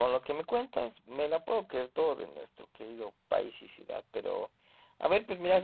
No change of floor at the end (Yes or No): Yes